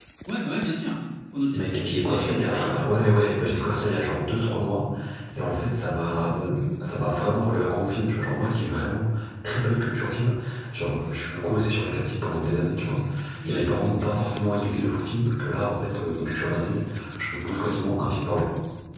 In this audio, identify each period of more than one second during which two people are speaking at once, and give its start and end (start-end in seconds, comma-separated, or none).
1.5-2.9